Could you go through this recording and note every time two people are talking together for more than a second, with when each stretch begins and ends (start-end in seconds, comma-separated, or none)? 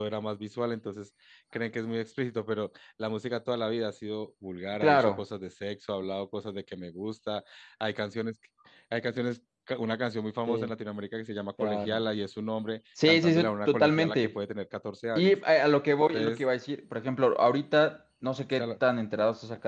13.1-14.3